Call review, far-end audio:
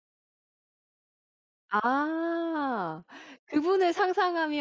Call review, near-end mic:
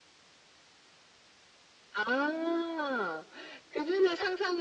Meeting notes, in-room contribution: none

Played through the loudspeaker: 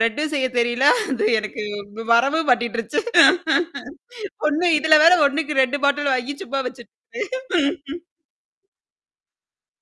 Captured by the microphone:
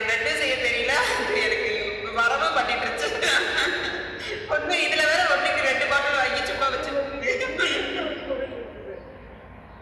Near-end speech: present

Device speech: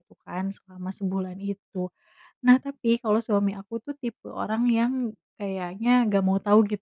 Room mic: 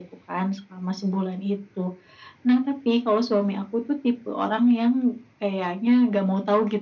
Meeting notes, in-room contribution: none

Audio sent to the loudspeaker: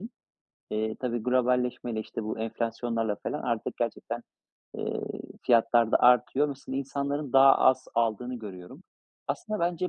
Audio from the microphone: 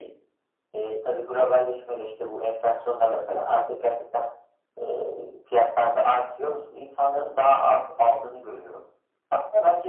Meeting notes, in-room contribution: none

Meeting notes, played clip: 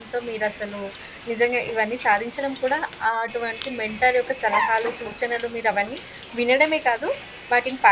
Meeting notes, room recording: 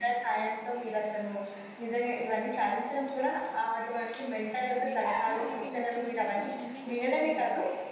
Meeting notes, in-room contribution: present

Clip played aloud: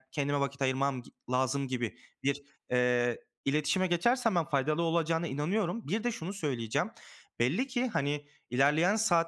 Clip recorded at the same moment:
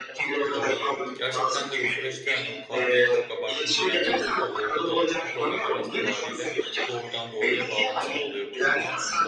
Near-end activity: present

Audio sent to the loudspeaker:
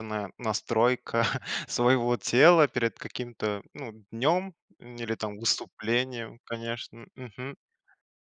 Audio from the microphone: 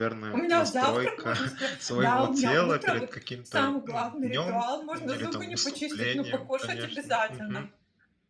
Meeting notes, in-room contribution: present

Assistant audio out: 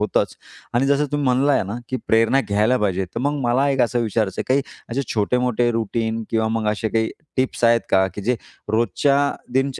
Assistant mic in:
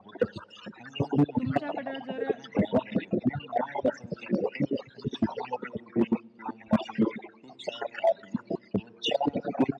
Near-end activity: present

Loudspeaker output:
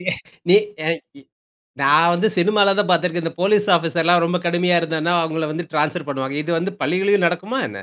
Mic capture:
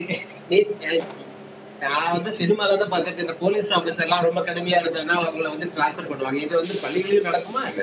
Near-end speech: none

